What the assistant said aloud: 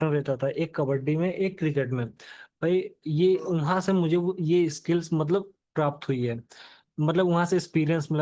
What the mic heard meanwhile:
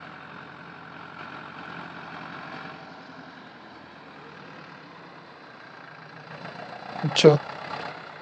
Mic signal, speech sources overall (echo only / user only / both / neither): user only